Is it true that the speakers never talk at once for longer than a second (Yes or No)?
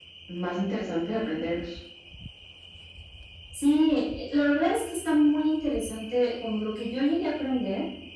Yes